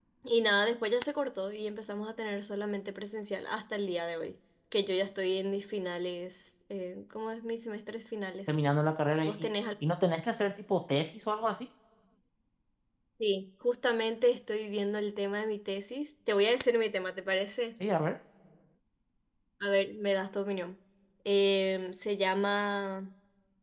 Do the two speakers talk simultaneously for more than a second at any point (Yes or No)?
No